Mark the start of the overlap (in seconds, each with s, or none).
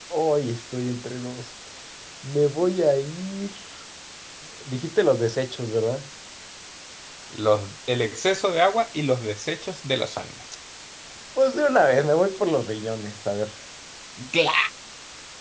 none